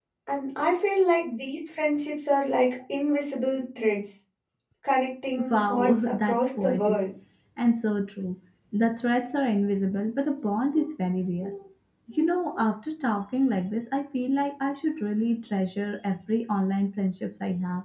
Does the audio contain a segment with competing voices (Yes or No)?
Yes